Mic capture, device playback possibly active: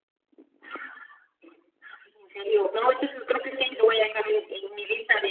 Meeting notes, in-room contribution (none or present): none